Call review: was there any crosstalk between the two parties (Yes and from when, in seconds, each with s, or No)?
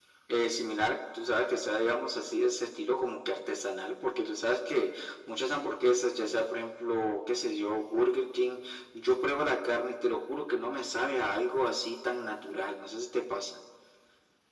No